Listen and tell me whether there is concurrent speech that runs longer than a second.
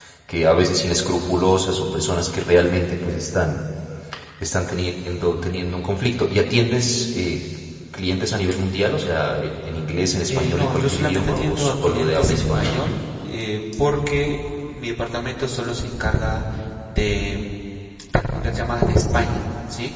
Yes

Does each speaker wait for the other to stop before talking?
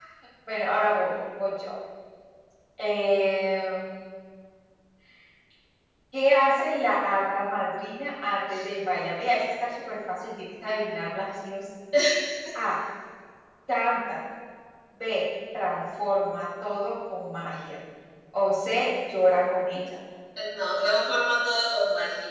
Yes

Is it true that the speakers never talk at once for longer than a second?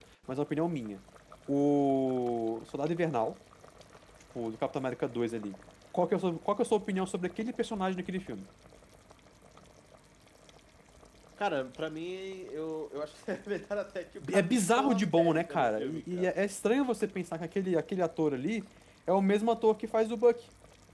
No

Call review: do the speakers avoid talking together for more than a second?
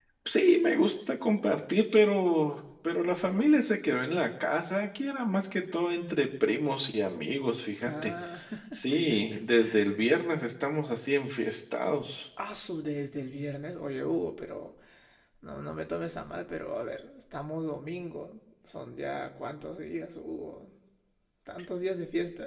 Yes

